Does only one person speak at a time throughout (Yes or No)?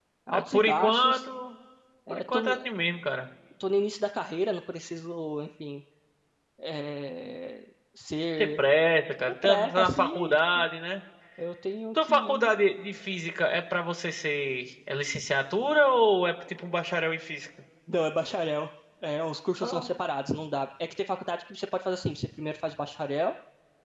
No